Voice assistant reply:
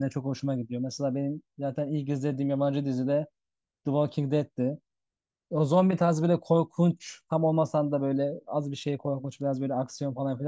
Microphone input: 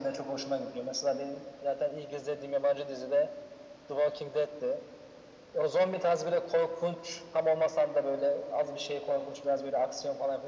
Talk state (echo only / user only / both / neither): echo only